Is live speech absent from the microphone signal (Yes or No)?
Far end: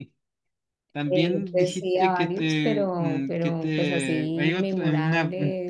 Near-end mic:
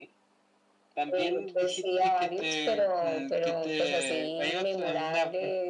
Yes